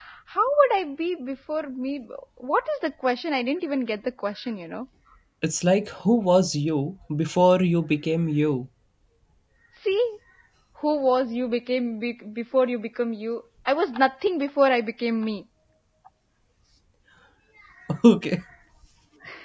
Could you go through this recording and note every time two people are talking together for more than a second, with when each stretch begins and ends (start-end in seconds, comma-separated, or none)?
none